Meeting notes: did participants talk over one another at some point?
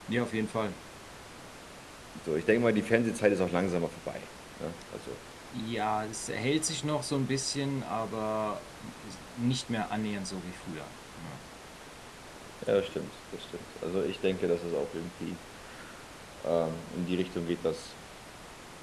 No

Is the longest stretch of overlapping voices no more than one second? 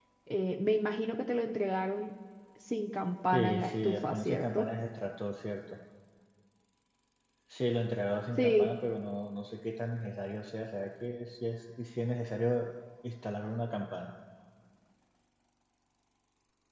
No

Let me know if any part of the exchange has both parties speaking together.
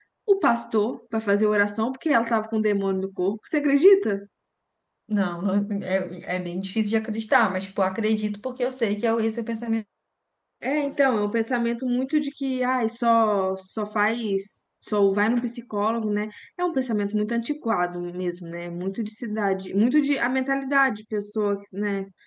No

